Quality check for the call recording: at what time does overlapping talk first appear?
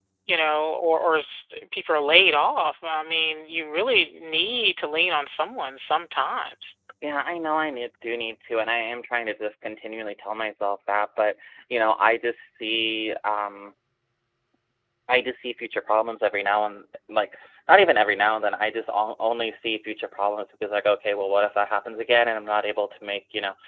none

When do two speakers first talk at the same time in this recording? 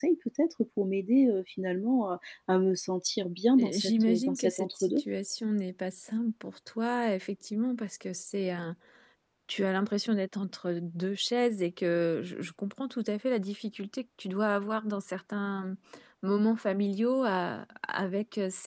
3.6 s

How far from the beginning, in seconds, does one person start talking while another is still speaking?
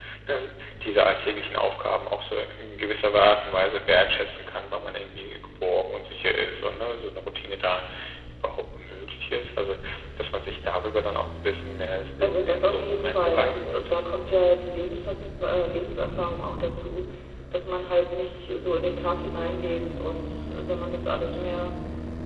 12.2 s

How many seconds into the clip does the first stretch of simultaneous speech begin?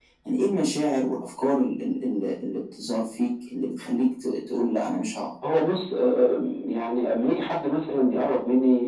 none

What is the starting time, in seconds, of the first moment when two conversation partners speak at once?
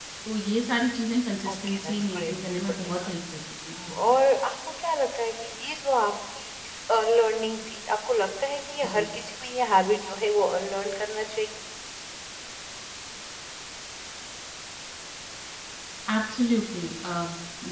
1.4 s

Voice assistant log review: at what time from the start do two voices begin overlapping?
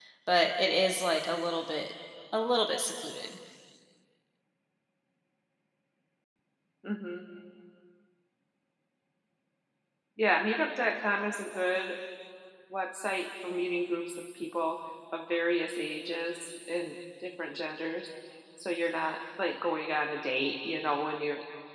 none

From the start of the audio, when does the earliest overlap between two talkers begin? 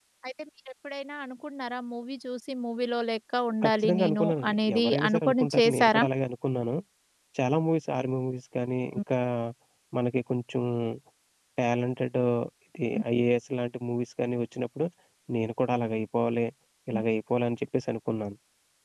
3.6 s

